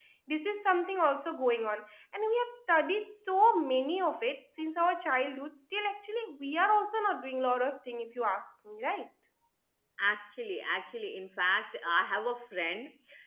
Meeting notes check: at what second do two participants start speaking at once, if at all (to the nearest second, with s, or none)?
none